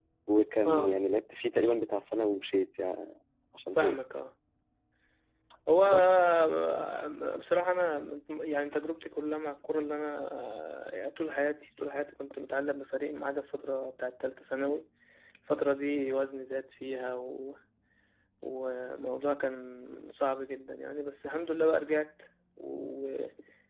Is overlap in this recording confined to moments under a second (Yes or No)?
Yes